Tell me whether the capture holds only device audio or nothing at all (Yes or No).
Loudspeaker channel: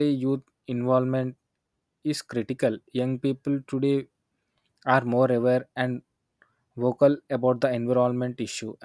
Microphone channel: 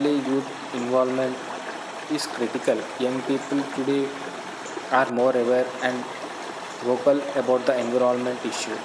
Yes